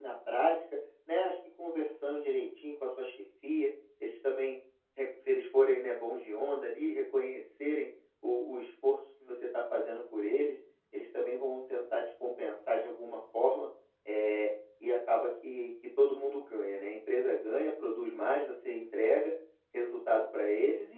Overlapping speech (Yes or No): No